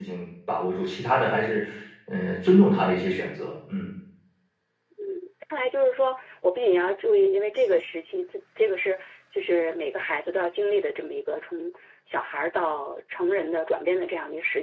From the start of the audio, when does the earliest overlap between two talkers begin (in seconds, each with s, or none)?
none